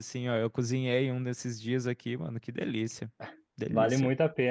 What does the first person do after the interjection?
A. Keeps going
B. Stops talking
B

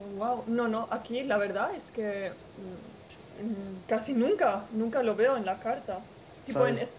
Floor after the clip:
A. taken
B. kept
B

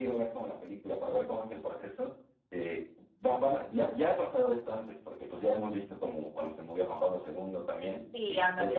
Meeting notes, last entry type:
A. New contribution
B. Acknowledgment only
B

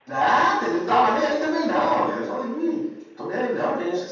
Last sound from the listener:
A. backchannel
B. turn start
A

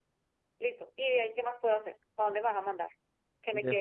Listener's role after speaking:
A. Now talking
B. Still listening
B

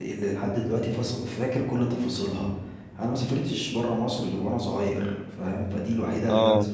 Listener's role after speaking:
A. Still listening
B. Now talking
A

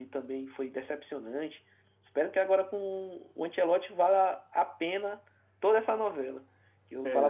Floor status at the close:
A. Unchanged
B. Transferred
A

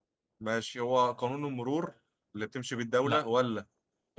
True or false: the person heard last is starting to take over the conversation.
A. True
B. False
B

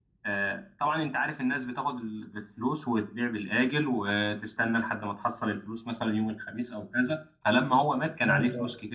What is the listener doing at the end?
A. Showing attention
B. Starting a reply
A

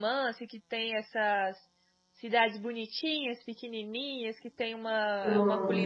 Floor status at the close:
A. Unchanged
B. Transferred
A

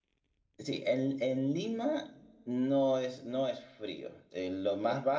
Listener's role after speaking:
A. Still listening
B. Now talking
A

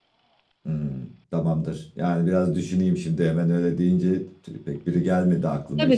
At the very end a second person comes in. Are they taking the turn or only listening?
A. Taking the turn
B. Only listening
A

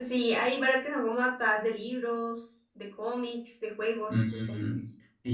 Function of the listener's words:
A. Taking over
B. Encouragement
A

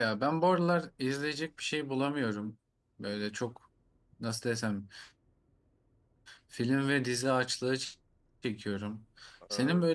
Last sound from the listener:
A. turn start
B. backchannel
B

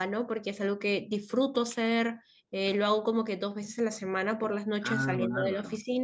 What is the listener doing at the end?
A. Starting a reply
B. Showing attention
B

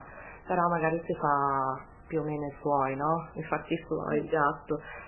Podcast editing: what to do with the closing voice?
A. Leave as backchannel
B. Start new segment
A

